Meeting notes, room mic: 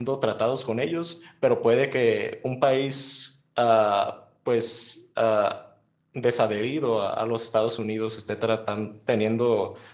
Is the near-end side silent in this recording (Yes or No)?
No